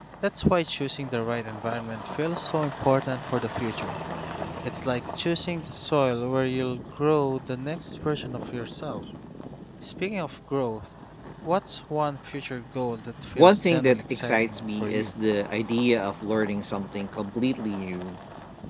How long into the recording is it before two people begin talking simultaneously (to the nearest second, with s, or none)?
13 s